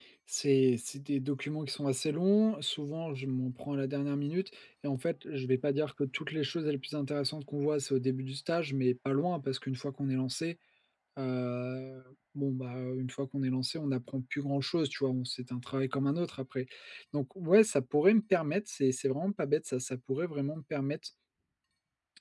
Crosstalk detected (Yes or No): No